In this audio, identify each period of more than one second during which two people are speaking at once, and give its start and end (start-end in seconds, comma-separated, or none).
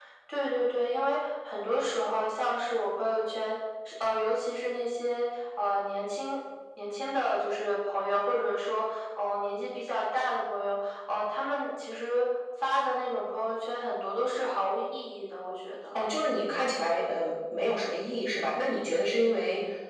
none